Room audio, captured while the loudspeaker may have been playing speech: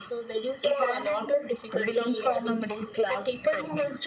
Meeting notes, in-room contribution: none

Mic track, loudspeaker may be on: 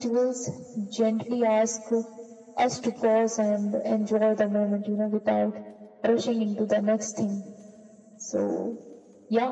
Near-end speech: none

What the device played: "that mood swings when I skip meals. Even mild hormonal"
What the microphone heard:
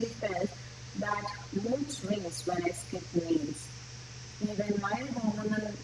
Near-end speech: none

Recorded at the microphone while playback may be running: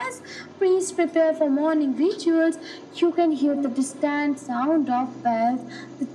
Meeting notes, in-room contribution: none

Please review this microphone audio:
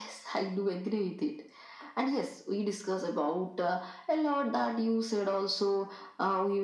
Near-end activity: none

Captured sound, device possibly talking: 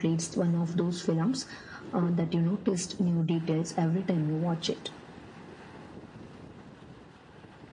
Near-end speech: none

